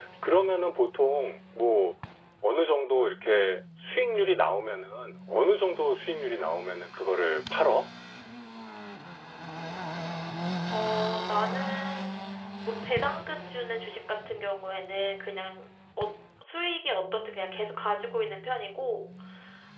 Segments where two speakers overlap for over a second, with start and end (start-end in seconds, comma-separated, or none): none